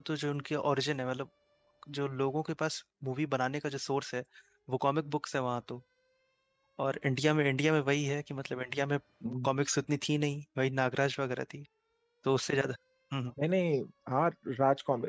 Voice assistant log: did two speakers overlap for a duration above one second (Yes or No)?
No